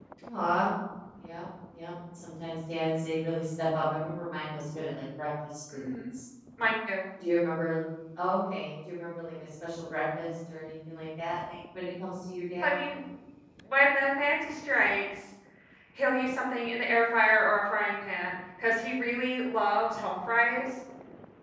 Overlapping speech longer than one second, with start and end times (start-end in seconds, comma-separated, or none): none